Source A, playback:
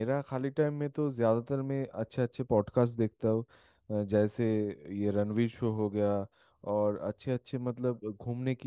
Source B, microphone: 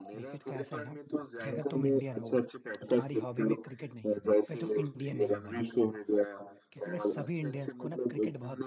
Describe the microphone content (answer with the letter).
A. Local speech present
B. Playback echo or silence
A